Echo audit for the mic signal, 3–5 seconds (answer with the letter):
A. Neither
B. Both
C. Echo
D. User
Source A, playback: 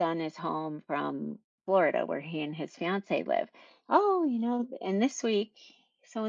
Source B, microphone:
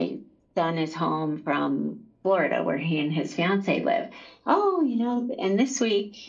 C